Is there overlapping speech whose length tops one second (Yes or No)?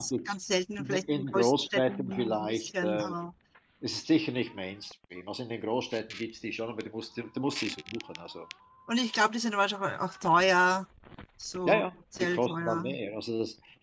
Yes